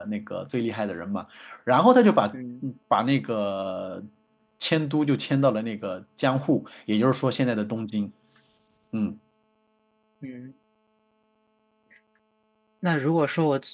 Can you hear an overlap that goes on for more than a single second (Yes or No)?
No